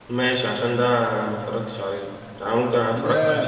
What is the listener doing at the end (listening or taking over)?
listening